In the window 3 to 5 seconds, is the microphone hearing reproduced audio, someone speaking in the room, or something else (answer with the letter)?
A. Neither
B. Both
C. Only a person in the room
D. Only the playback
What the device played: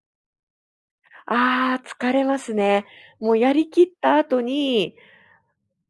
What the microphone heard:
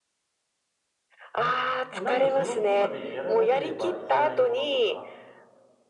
B